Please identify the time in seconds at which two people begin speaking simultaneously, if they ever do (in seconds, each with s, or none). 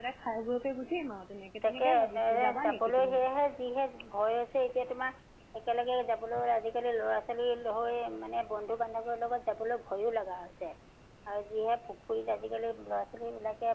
1.6 s